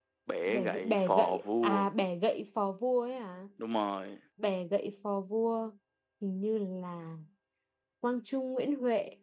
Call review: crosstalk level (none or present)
present